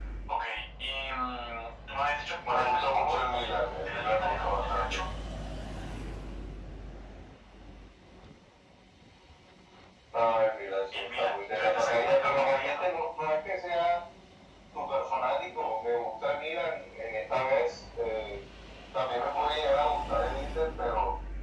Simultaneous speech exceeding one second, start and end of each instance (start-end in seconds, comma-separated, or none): 2.4-4.8, 10.9-12.9